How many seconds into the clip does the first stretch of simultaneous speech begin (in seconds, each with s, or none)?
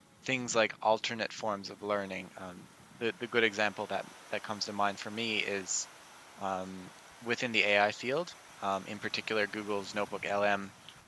none